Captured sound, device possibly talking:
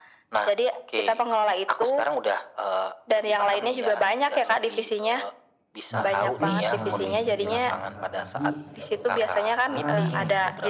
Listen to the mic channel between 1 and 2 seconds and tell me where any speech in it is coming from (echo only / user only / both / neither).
echo only